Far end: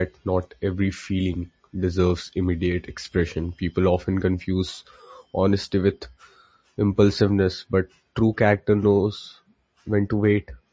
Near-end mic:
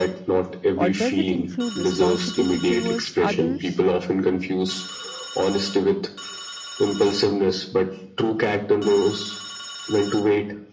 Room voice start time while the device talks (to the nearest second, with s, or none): 1 s